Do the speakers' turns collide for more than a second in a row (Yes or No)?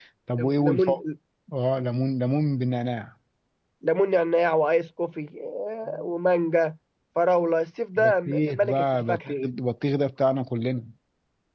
Yes